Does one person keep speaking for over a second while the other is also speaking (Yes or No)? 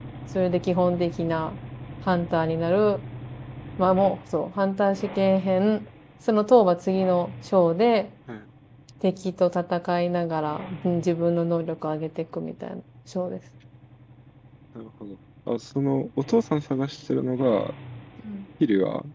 No